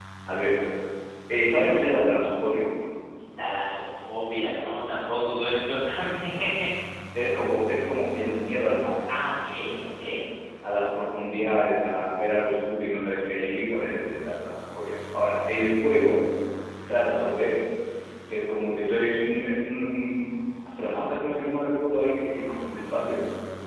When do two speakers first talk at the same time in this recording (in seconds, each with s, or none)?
none